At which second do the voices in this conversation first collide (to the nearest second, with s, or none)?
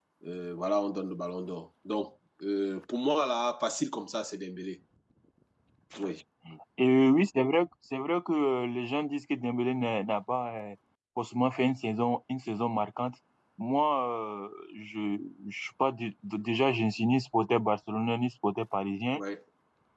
none